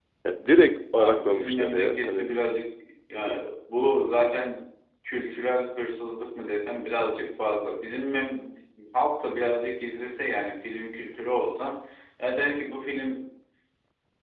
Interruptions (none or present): present